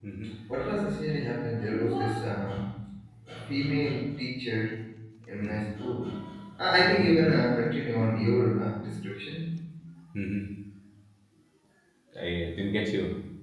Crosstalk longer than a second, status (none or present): none